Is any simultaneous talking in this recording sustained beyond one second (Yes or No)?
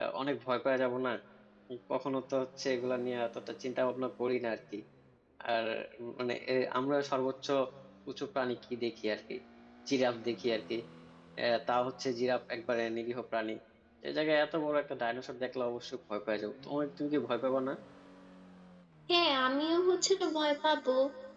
No